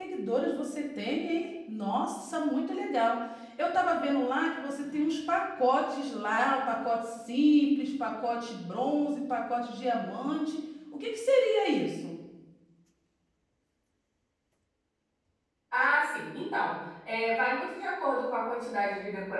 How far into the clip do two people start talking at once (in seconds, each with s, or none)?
none